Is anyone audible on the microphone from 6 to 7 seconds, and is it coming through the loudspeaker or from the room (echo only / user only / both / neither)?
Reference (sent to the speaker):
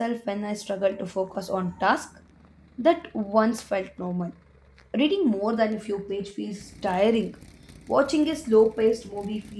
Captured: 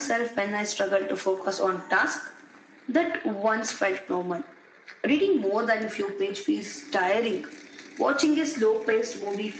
echo only